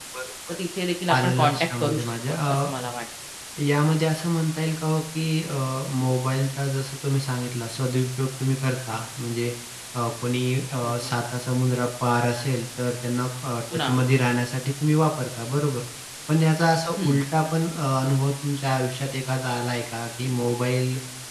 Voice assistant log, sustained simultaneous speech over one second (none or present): present